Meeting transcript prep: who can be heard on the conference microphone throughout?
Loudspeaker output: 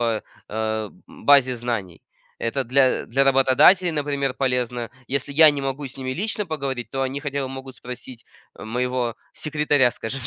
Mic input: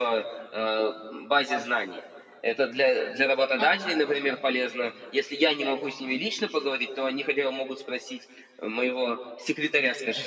both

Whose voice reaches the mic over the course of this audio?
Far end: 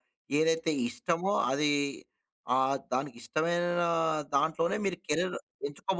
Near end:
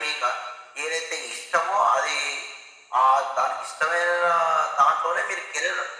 echo only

